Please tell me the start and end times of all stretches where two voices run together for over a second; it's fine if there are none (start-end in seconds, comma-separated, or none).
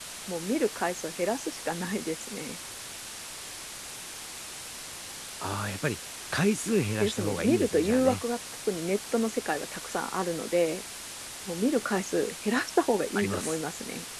7.0-8.2